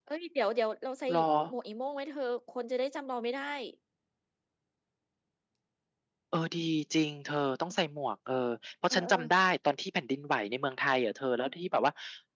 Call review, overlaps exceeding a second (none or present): none